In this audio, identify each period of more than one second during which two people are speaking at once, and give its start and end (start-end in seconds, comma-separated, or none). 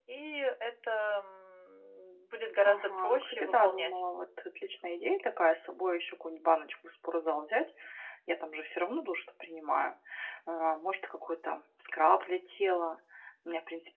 2.6-3.9